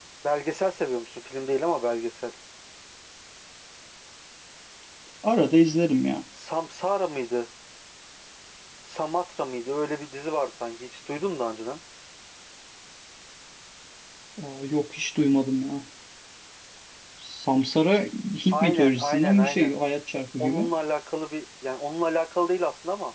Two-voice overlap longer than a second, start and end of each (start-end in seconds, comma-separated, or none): 18.5-19.7